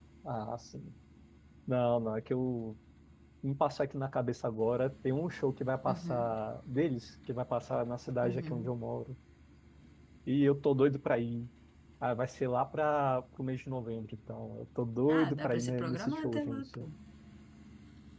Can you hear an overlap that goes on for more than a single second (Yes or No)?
Yes